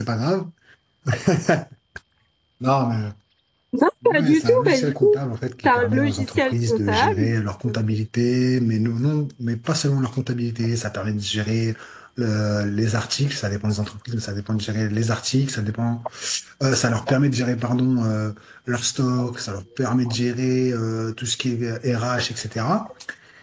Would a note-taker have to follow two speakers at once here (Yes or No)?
Yes